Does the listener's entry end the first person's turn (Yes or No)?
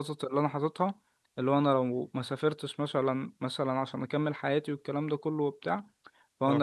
No